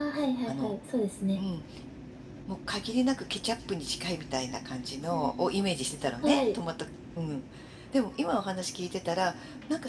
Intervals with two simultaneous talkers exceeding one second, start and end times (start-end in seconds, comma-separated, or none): none